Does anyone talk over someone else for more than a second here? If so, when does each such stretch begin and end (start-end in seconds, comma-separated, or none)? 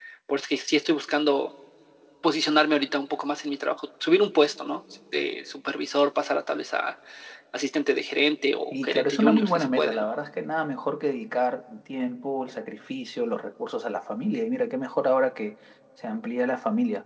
8.7-10.1